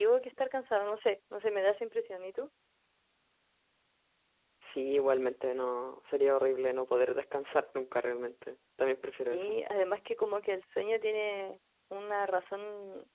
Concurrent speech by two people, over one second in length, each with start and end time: none

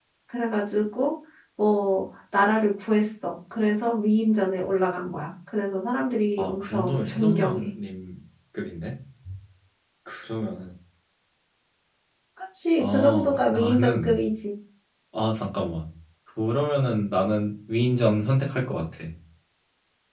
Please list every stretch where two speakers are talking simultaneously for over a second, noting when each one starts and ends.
6.4-7.7, 12.8-14.2

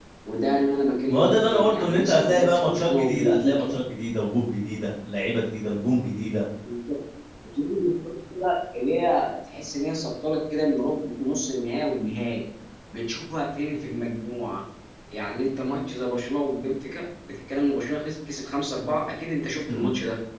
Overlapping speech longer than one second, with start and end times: 1.0-3.7

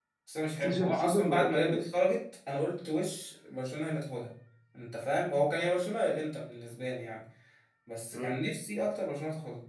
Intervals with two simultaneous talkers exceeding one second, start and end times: 0.6-1.8

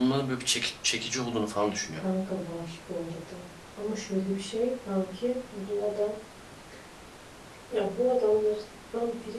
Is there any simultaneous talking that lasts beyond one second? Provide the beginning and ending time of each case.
none

